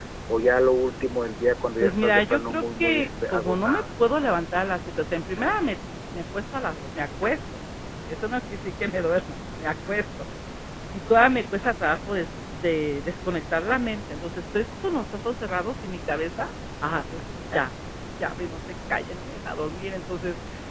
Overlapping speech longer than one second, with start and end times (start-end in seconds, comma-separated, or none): 1.8-3.8